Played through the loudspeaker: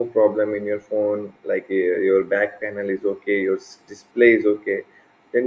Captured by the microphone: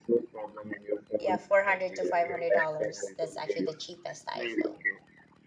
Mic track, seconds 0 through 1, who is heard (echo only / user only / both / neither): echo only